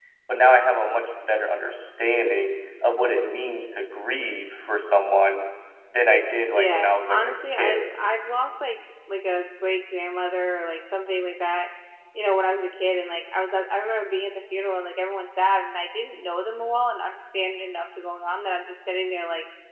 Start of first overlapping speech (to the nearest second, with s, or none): 7 s